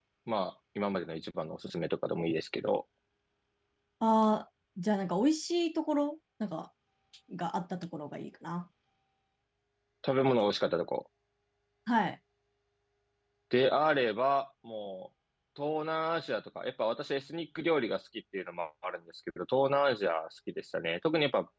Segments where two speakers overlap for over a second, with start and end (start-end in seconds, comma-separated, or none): none